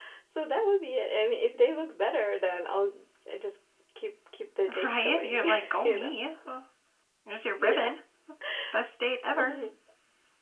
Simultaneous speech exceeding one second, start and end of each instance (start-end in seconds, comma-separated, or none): 4.8-6.1